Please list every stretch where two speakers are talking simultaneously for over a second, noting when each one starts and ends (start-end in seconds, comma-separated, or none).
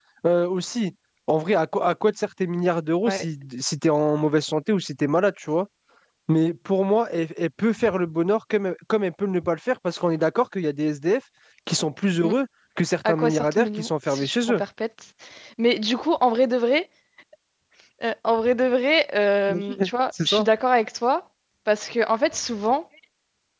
13.1-14.6